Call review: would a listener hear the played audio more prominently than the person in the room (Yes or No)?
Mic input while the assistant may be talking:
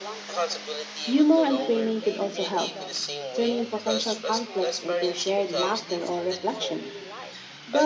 No